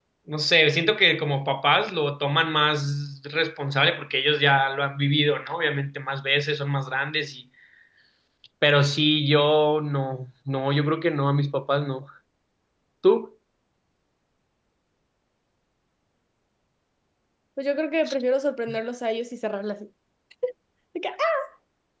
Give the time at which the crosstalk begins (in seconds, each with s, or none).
none